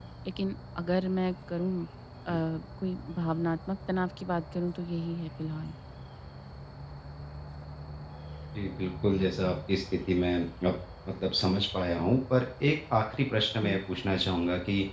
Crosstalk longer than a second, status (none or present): none